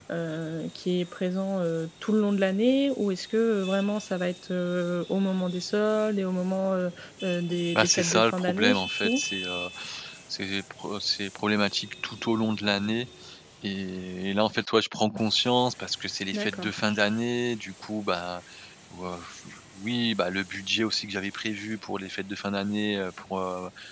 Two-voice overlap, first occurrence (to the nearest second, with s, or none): 8 s